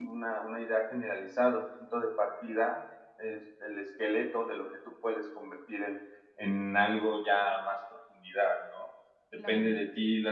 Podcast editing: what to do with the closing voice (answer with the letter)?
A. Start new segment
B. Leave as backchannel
B